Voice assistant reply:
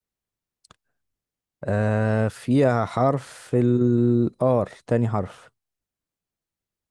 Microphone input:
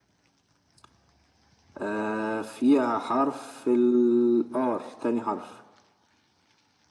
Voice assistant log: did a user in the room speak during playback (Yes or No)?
No